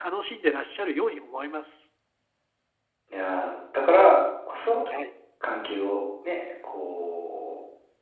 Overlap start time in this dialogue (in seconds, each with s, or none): none